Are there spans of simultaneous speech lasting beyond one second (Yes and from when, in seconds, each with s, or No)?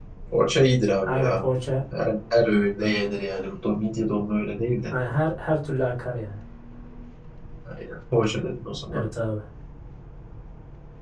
No